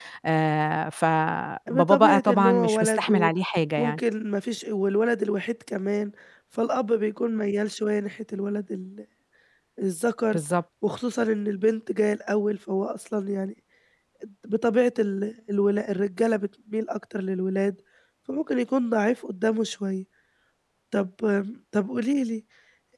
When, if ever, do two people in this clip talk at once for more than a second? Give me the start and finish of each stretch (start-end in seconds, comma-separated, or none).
1.7-3.3